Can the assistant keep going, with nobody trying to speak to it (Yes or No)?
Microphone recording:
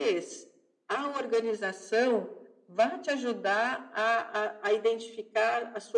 Yes